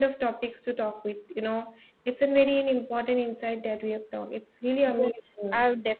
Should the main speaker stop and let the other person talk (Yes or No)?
Yes